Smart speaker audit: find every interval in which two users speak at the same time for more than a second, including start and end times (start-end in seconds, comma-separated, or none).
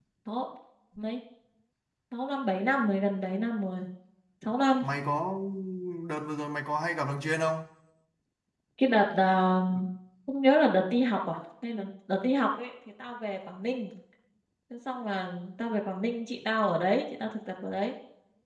none